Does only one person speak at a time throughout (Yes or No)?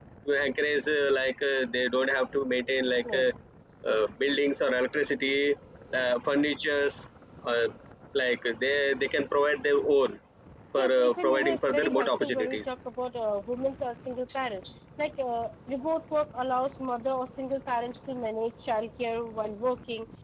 No